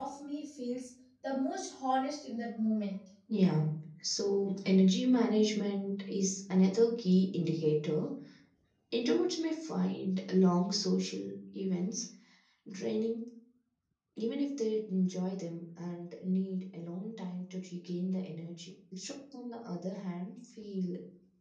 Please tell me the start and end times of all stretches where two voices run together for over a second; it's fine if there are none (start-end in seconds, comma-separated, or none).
none